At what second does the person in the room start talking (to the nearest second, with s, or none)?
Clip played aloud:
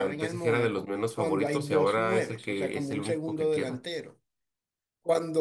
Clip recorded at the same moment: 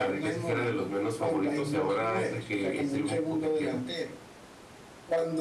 none